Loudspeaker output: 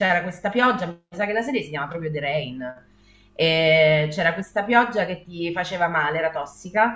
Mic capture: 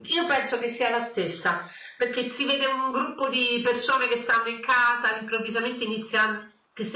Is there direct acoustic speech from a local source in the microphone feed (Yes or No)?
Yes